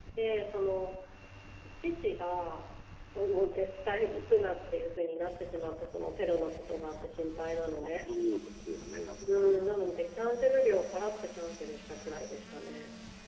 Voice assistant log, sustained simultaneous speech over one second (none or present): none